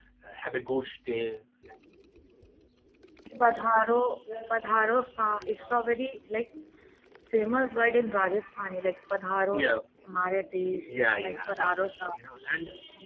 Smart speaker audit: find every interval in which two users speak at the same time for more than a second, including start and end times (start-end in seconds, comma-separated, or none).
10.8-12.4